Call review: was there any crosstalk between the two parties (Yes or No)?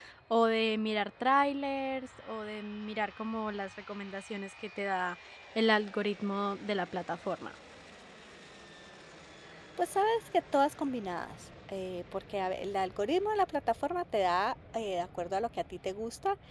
No